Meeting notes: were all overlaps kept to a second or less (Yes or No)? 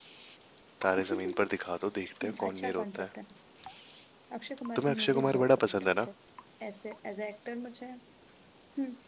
No